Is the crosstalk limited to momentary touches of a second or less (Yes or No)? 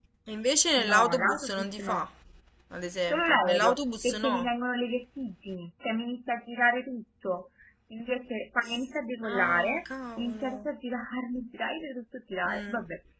No